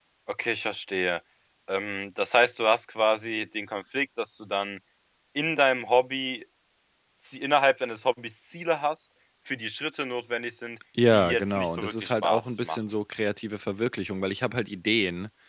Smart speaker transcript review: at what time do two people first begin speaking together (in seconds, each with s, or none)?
11.0 s